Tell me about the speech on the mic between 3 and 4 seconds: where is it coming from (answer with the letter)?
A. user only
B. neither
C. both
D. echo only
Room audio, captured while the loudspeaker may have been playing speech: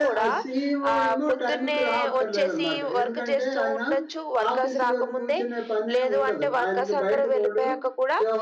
C